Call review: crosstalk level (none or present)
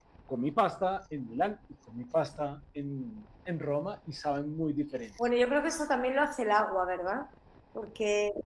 none